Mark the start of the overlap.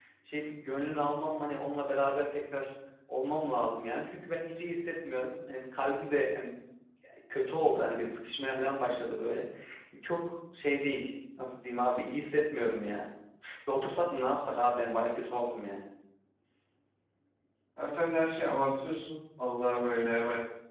none

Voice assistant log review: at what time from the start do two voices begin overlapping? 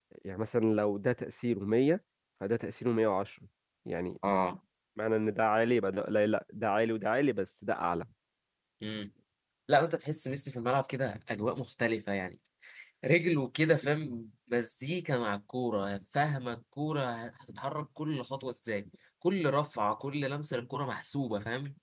none

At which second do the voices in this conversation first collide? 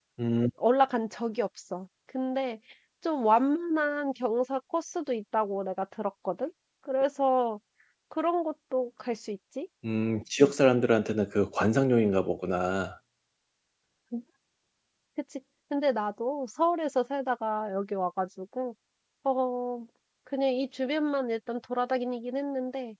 none

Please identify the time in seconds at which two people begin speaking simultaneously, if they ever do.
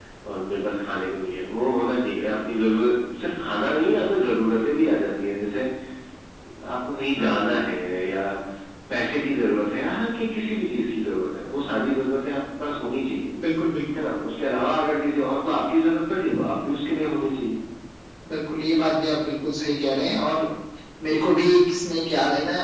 none

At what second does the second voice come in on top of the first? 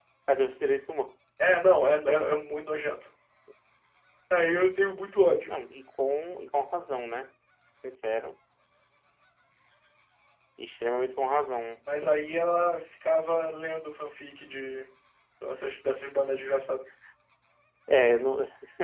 none

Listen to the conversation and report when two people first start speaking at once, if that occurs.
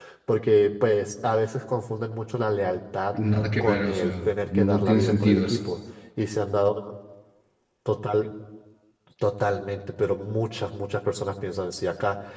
4 s

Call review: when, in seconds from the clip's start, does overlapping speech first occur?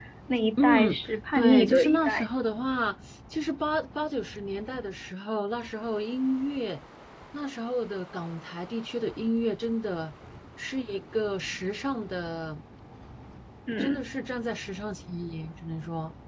1 s

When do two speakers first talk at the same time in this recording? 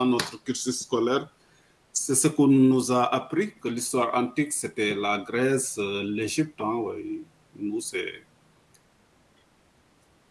none

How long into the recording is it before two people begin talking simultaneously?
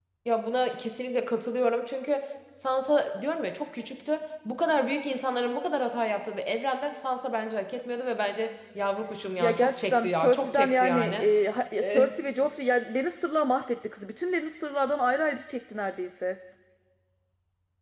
9 s

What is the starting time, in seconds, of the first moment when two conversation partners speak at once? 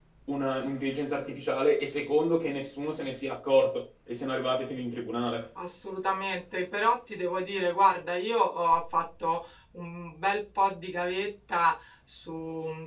none

